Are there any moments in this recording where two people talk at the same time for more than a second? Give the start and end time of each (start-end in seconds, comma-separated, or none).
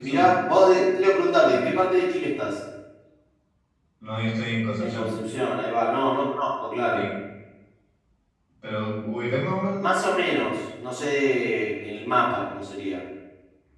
none